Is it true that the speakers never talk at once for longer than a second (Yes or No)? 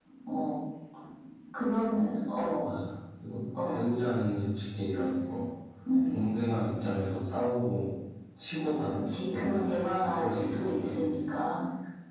No